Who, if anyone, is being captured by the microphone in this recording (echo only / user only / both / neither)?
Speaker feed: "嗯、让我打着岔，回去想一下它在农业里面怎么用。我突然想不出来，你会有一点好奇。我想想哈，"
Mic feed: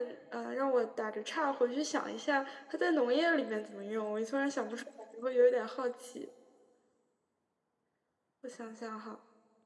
echo only